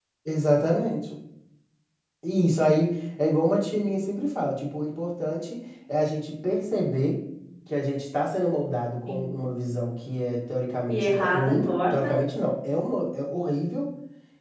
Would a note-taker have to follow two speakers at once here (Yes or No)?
Yes